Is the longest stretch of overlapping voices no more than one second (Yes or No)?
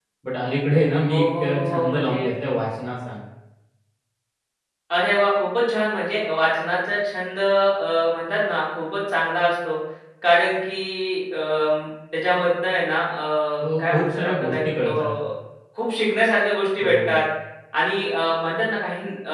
No